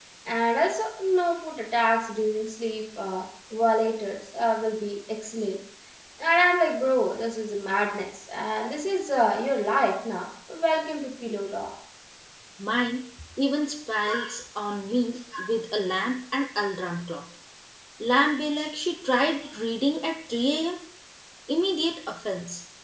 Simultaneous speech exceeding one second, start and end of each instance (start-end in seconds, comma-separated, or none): none